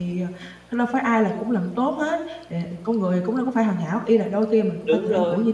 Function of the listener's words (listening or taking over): listening